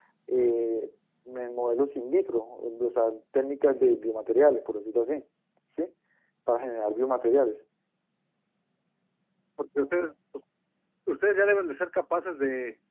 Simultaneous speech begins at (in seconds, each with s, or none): none